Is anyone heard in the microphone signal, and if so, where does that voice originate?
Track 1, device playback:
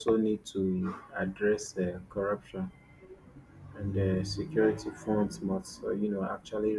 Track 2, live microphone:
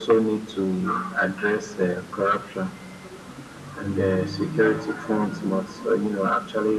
echo only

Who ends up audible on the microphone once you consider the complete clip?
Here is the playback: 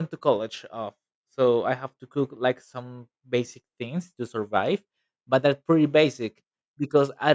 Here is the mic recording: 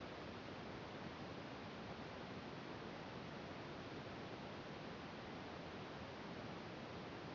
neither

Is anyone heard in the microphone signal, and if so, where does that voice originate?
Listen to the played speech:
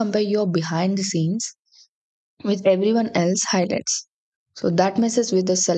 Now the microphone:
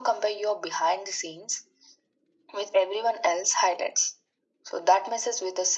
echo only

